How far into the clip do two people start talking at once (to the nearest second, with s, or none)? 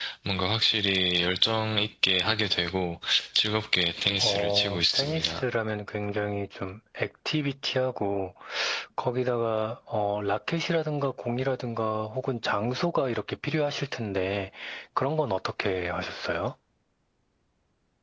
4 s